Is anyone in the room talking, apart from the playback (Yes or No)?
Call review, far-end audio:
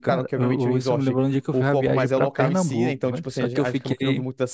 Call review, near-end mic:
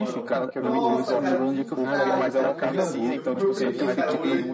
Yes